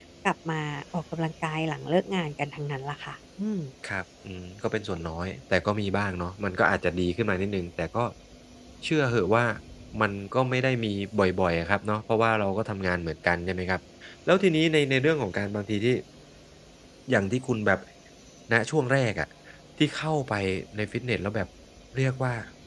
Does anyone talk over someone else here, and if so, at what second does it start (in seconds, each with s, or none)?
none